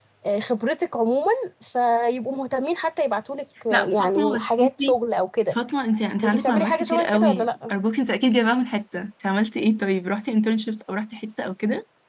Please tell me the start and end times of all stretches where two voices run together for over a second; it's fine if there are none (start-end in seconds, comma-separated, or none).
3.7-5.0, 6.2-7.7